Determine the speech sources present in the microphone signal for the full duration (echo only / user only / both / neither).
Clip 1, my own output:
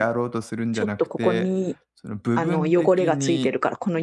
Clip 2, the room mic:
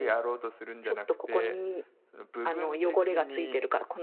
echo only